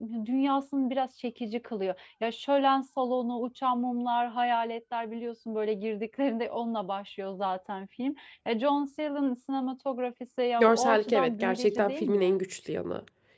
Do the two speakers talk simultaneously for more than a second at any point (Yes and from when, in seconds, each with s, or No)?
Yes, from 10.6 s